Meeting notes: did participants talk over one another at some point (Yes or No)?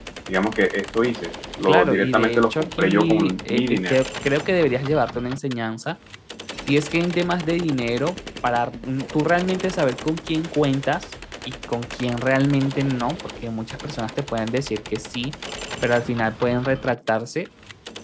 Yes